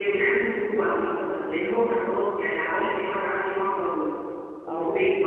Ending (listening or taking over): taking over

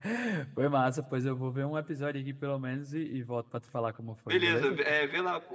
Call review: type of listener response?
taking over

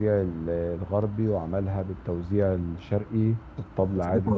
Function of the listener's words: taking over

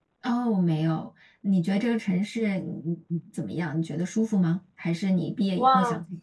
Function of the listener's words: taking over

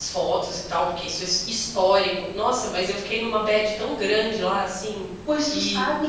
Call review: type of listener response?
taking over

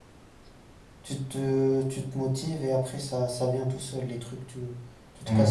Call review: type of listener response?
listening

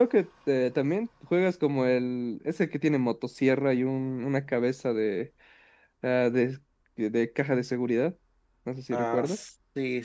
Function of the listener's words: taking over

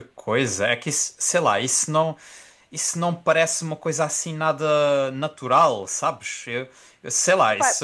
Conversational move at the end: listening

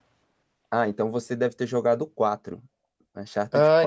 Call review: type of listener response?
taking over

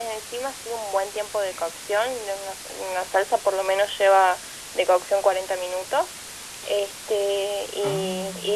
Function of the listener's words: listening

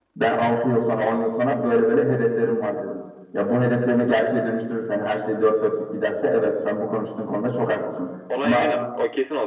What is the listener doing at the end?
taking over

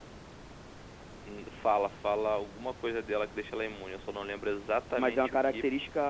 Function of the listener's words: taking over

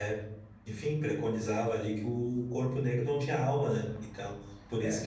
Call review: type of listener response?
taking over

